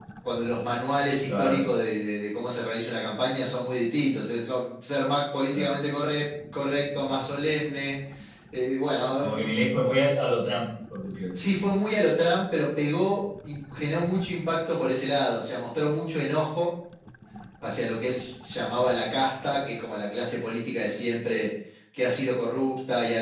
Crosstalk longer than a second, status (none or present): none